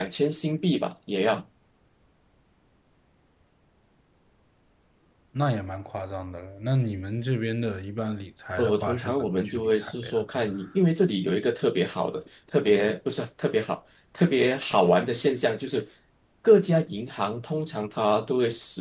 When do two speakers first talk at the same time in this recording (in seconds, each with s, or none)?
8.6 s